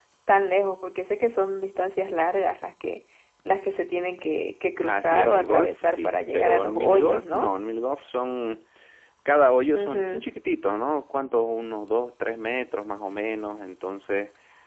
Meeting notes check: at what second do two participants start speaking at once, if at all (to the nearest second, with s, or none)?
5 s